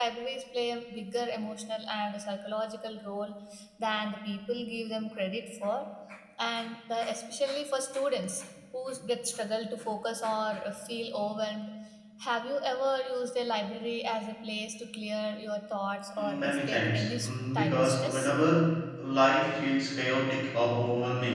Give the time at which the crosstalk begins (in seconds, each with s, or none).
16.2 s